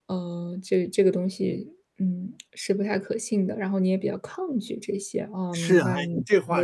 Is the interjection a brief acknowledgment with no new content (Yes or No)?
No